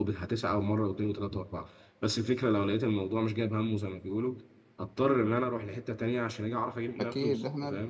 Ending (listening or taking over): taking over